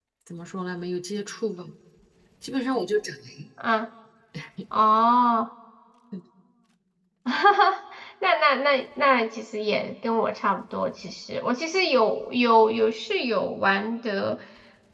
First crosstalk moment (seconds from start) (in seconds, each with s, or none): none